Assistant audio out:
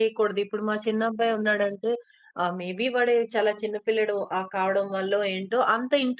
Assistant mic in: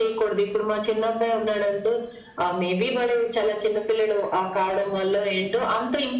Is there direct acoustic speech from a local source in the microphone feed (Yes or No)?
No